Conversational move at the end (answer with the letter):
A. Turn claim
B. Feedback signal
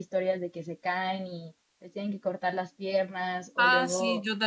A